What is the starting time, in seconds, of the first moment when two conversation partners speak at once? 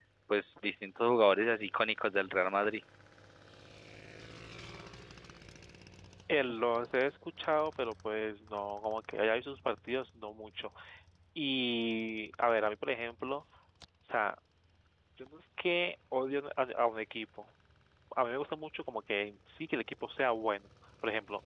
none

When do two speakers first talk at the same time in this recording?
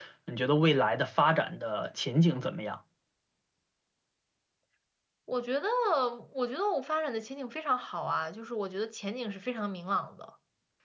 none

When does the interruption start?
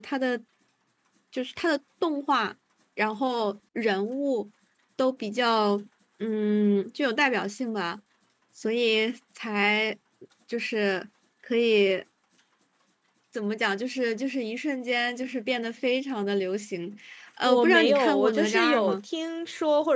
17 s

